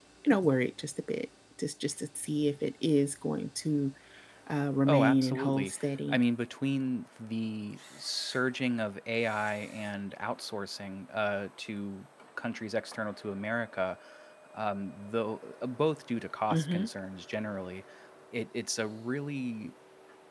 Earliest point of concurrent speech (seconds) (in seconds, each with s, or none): 4.9 s